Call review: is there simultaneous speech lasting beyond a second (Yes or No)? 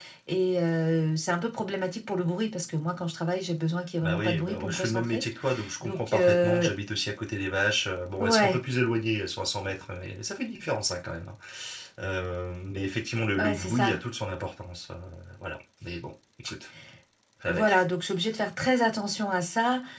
Yes